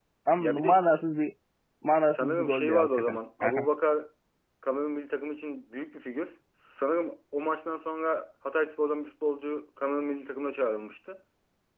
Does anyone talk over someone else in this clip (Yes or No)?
Yes